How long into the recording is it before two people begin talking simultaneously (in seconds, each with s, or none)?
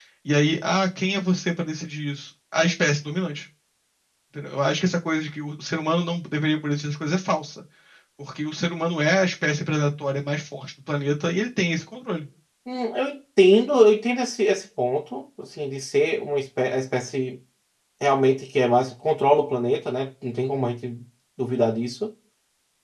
none